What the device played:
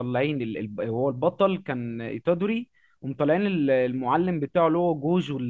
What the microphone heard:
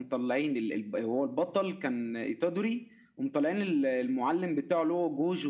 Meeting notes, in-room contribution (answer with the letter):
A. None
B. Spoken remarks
A